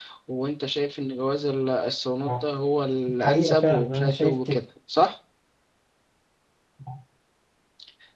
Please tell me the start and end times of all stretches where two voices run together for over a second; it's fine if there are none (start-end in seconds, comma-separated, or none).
3.2-4.6